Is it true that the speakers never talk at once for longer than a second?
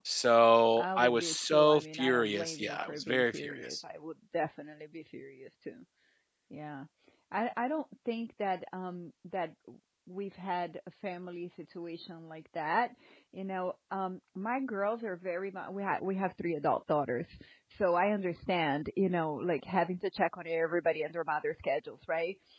No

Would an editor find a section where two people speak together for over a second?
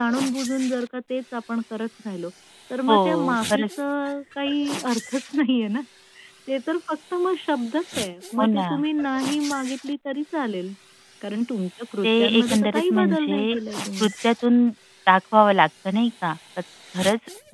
Yes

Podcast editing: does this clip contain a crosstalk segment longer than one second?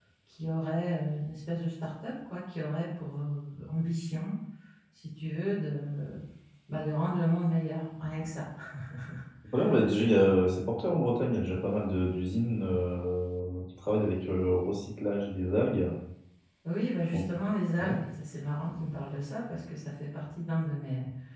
No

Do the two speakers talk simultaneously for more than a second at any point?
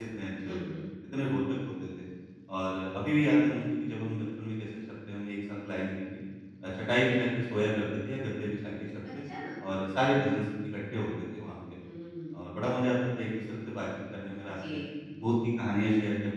No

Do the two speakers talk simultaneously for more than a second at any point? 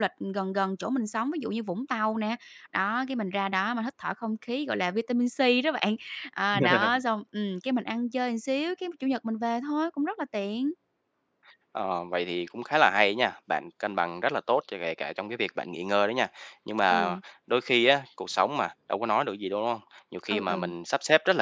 No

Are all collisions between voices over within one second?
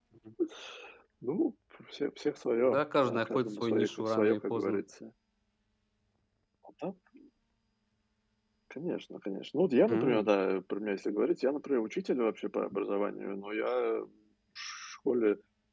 No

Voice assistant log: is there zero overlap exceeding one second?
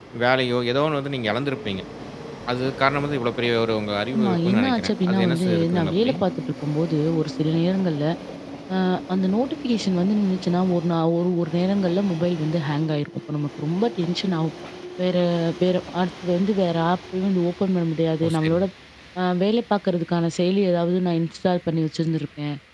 No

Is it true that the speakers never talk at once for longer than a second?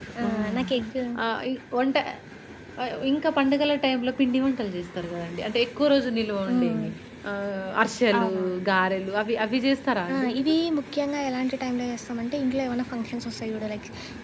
Yes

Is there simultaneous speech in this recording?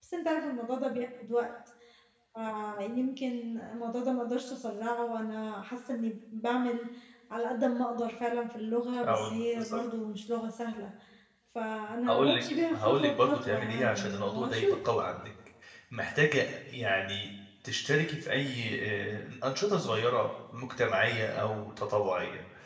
Yes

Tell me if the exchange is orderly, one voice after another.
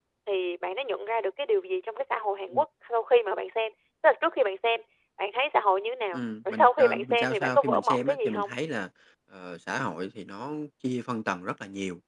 No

